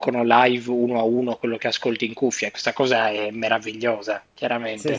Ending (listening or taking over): taking over